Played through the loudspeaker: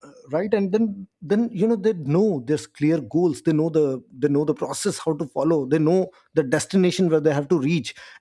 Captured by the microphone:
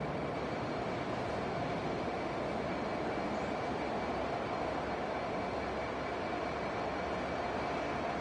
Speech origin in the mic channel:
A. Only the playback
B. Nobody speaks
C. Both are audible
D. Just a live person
B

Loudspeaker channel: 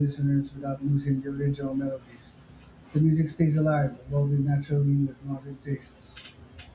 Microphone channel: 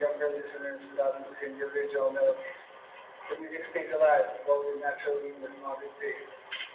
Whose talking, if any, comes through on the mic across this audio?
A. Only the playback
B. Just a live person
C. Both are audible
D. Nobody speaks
A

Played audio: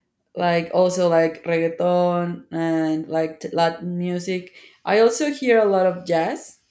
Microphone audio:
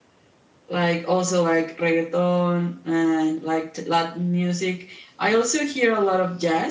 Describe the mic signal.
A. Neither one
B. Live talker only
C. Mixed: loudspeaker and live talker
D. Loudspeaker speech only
D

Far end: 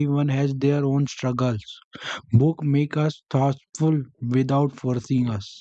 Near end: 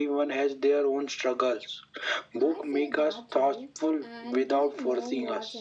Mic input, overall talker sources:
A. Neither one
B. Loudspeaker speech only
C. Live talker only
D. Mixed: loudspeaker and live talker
D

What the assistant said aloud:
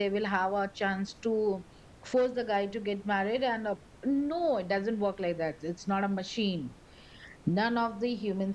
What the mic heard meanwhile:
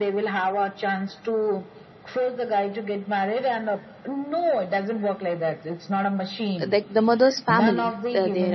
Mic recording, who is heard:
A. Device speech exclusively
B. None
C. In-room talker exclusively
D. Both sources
D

